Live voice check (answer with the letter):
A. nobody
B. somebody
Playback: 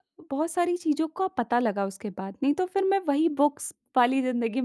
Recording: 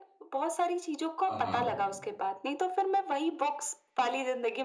B